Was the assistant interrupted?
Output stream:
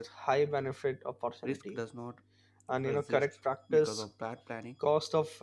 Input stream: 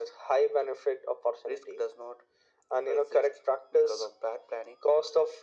No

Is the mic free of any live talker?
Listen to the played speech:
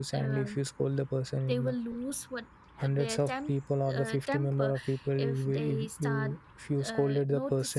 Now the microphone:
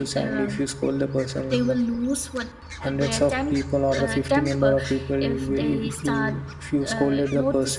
Yes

